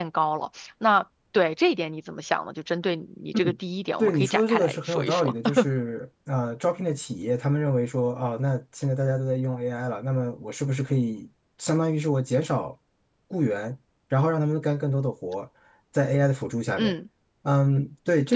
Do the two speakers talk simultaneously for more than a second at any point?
Yes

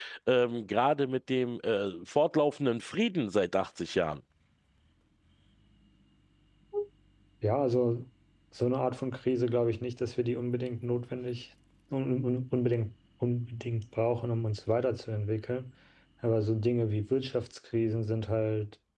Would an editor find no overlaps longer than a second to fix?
Yes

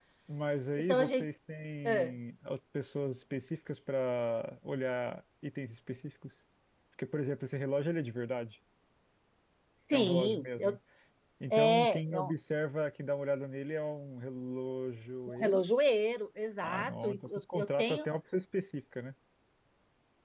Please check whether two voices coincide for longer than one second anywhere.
Yes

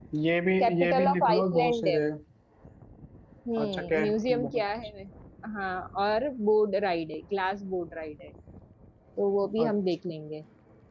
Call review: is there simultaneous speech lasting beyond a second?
Yes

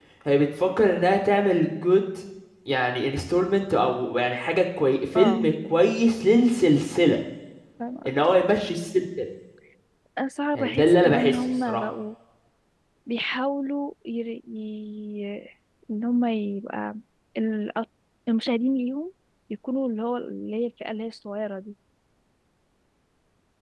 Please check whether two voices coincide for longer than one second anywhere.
Yes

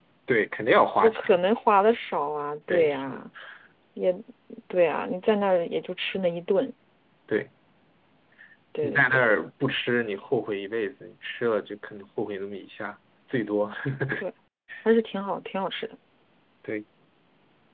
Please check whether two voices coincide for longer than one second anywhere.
No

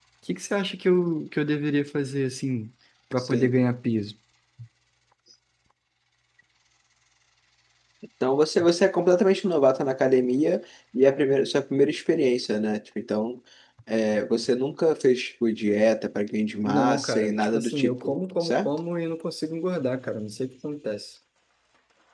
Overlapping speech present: Yes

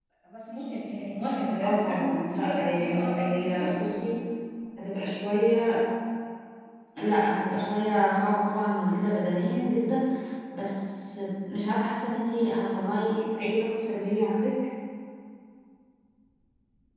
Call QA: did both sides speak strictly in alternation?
No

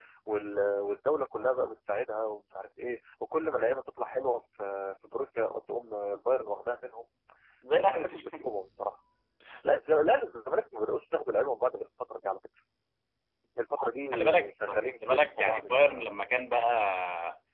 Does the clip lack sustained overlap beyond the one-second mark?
No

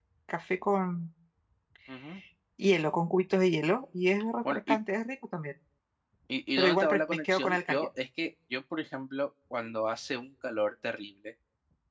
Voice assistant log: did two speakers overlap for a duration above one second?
Yes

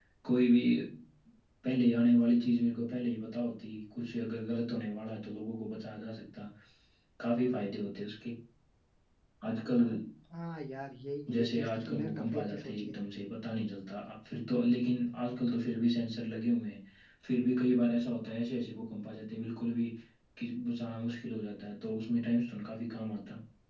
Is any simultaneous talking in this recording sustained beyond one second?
Yes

